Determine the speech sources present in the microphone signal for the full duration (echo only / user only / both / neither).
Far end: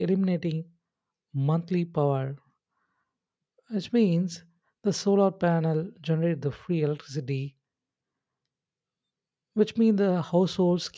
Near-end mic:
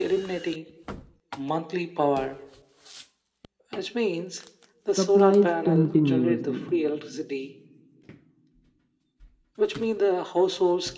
both